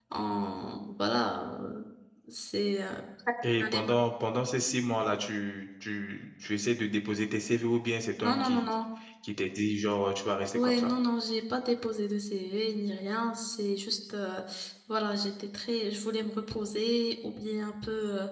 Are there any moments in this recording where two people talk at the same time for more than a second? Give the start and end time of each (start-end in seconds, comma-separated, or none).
none